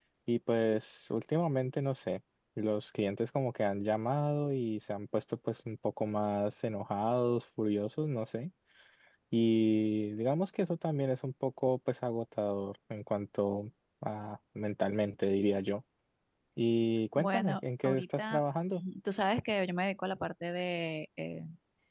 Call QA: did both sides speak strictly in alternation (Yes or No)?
No